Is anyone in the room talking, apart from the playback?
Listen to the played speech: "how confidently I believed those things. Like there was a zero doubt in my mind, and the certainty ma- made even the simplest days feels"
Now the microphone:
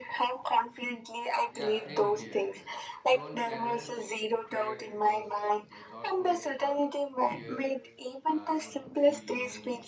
Yes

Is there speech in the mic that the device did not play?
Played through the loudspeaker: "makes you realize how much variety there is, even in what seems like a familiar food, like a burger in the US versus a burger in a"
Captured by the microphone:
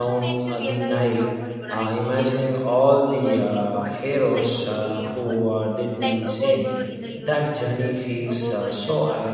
Yes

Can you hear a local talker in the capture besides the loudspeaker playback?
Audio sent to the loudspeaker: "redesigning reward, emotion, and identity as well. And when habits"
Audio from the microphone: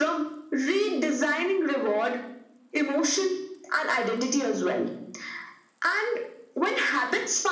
No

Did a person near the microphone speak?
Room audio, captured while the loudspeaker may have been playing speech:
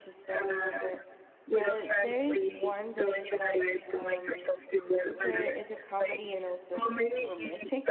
Yes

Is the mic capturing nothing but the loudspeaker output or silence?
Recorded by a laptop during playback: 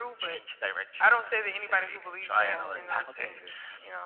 No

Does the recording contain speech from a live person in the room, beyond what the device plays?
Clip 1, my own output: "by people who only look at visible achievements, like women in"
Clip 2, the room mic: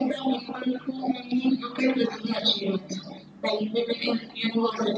No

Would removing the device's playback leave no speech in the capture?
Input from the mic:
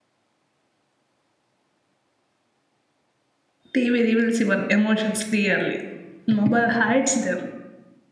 No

